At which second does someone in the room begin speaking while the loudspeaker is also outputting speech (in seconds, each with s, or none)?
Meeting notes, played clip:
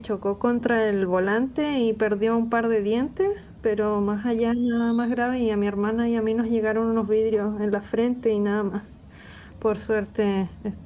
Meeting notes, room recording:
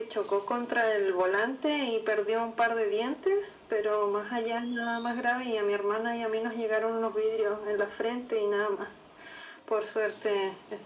none